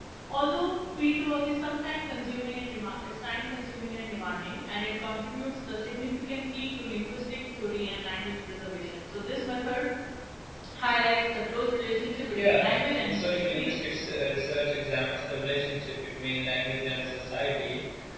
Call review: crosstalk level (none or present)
present